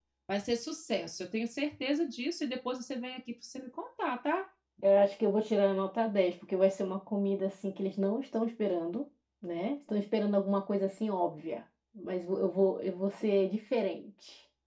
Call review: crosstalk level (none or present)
none